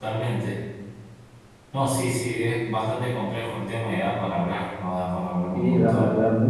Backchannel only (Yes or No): No